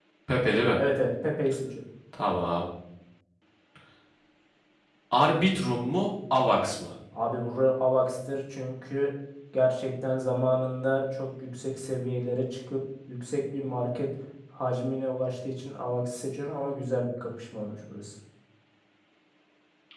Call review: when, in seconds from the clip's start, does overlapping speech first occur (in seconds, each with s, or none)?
none